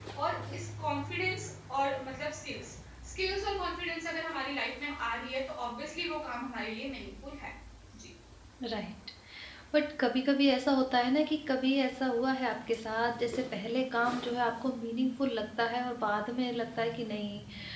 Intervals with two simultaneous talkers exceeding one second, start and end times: none

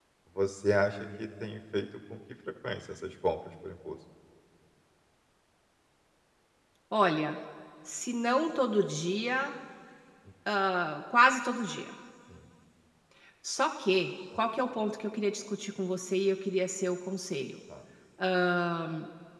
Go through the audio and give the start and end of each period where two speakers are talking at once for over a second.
none

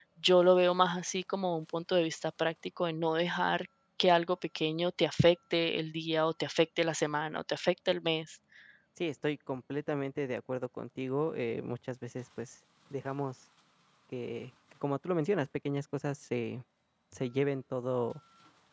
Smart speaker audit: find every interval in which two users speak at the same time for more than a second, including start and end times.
none

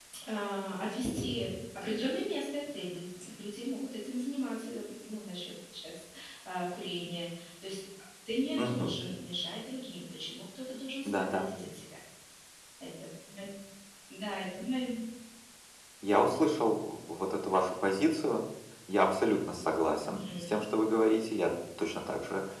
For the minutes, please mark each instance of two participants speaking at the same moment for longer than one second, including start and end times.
none

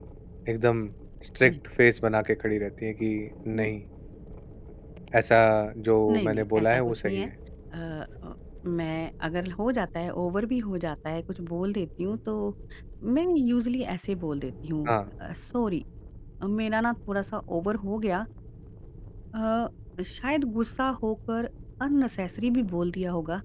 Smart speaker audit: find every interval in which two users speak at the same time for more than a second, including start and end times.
6.1-7.3

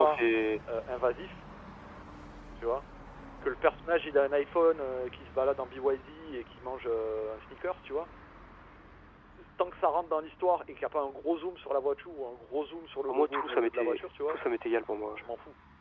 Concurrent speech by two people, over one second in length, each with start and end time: 13.1-14.4

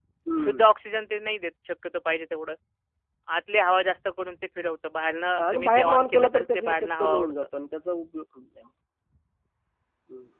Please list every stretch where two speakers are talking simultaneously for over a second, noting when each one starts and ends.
5.5-7.3

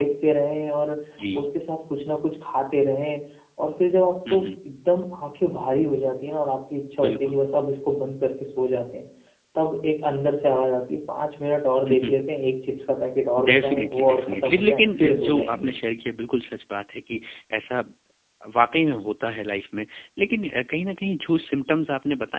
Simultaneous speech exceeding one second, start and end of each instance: 13.4-15.8

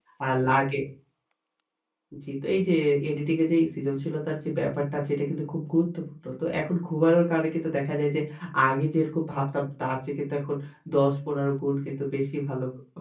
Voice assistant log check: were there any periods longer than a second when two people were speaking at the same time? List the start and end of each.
none

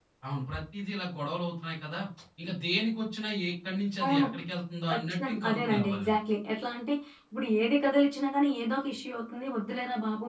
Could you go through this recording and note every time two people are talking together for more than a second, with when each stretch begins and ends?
4.9-6.1

